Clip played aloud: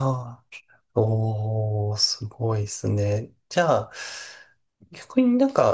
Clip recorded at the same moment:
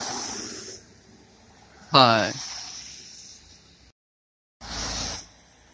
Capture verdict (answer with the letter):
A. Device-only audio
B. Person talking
B